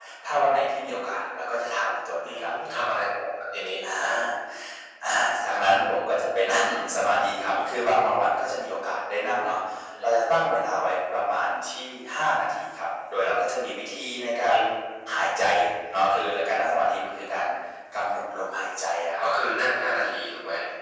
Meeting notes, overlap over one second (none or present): none